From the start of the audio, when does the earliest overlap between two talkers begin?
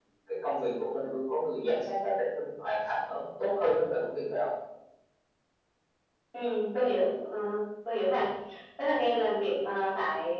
none

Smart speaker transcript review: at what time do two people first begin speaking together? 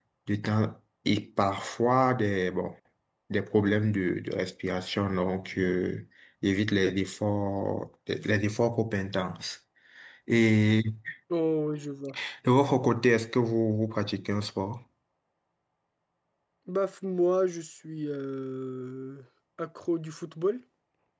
none

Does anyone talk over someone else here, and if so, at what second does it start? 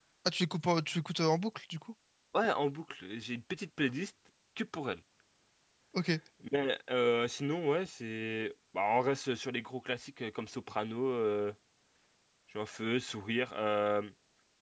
none

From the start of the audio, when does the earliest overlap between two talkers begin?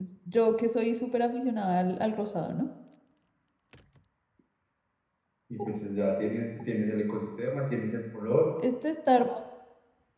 none

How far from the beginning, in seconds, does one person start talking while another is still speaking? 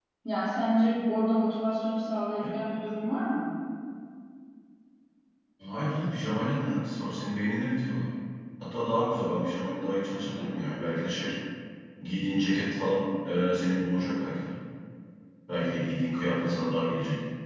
none

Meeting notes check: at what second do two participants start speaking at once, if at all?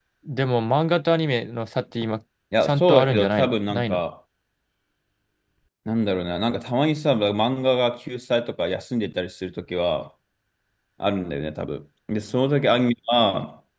3 s

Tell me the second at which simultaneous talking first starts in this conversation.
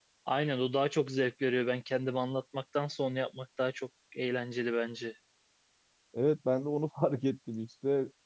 none

